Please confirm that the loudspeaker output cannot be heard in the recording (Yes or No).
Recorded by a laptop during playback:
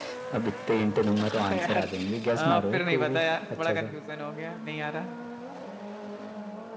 No